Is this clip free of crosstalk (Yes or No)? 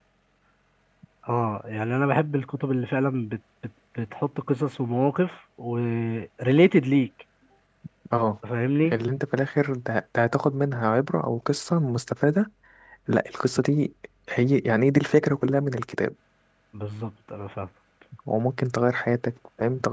Yes